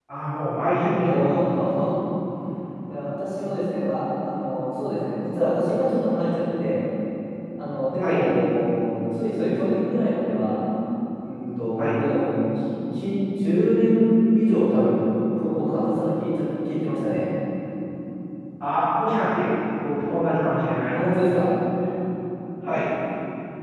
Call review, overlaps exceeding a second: none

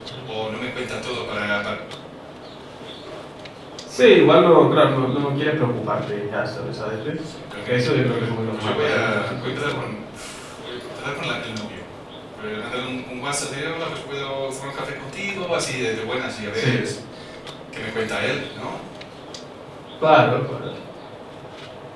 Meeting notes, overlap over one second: present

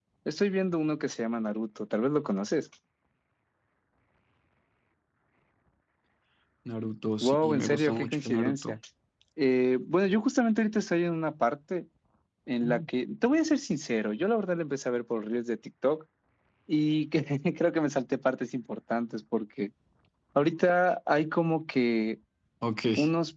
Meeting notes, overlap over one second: present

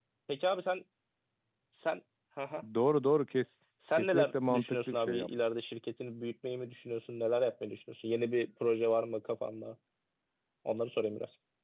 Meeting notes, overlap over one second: present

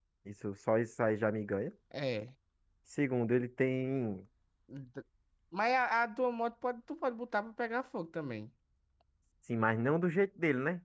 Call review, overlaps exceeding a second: none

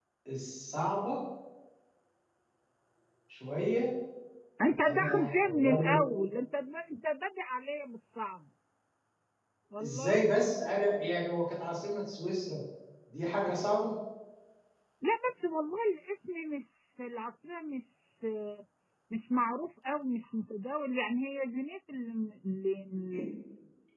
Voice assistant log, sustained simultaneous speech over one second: present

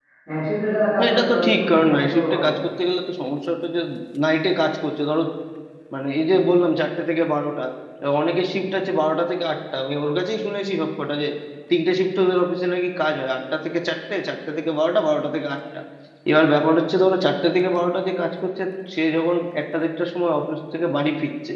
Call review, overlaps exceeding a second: present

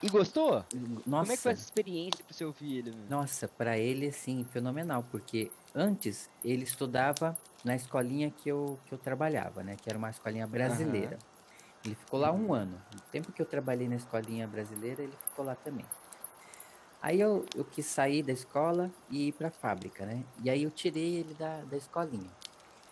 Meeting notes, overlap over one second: none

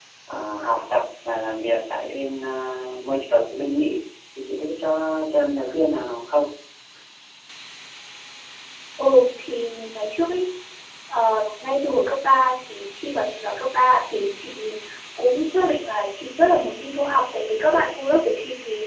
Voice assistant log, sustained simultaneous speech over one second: none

